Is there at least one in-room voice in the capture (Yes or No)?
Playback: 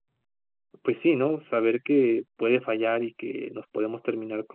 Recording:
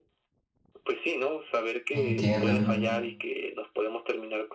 Yes